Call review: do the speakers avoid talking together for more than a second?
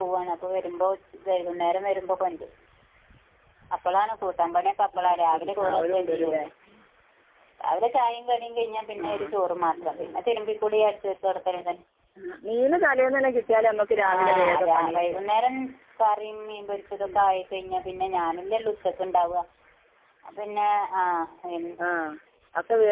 No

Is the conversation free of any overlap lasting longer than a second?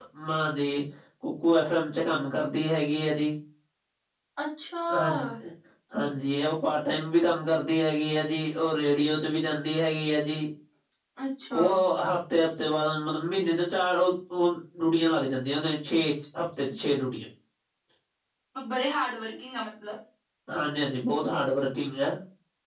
Yes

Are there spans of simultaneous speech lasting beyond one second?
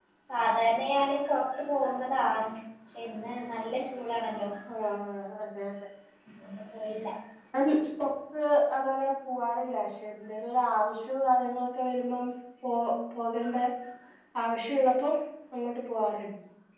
No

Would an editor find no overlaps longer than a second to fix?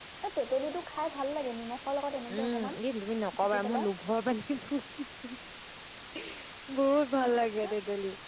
Yes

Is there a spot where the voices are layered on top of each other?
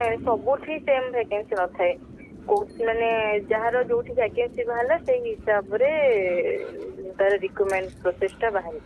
No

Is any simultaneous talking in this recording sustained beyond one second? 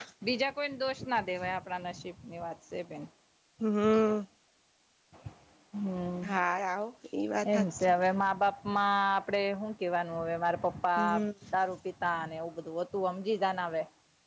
No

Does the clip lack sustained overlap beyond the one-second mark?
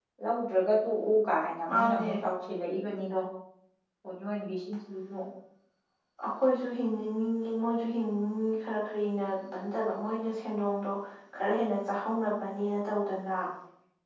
Yes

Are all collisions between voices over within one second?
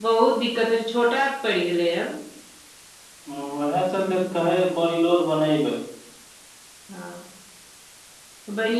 Yes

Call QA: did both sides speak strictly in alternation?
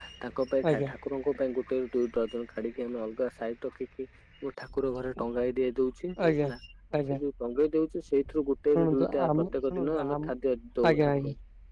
No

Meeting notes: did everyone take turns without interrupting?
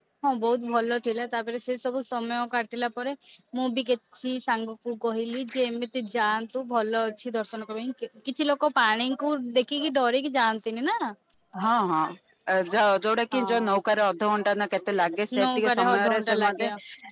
No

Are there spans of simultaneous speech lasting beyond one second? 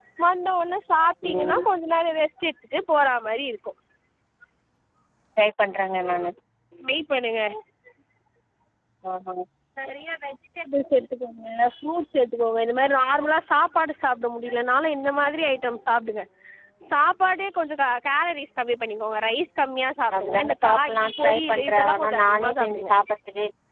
Yes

